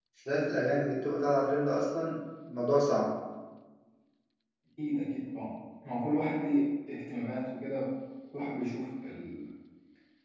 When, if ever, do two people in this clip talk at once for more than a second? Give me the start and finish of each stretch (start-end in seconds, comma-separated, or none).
none